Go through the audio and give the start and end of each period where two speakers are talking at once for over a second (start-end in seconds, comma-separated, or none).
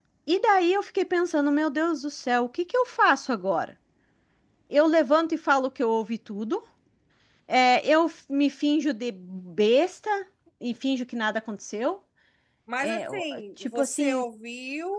12.8-14.2